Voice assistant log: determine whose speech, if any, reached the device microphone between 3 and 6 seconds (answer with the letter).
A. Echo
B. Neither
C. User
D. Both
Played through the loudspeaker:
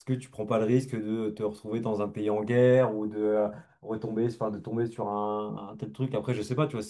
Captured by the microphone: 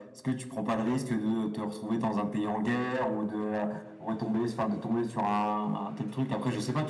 A